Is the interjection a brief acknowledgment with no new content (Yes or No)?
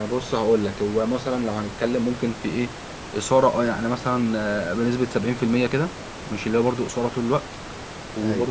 Yes